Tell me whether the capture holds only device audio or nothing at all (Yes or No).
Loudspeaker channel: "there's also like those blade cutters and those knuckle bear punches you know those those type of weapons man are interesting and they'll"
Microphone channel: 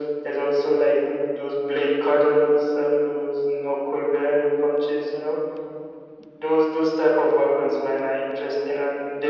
Yes